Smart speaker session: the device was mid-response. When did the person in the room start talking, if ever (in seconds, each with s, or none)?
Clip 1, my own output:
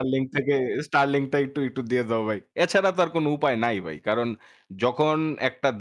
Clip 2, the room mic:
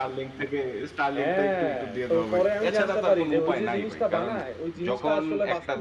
1.1 s